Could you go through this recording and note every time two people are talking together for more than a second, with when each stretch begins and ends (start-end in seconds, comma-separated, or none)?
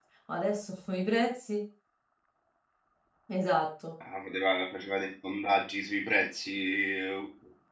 none